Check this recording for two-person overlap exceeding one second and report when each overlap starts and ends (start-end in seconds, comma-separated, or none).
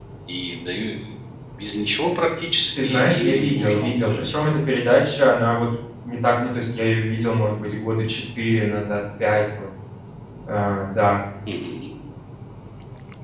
2.8-4.2